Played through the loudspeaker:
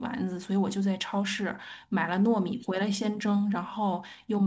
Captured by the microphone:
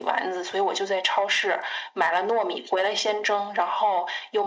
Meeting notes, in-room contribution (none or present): none